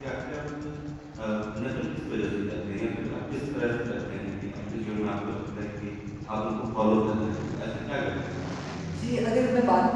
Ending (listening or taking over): taking over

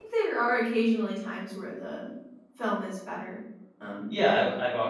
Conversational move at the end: taking over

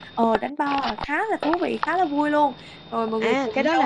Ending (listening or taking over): taking over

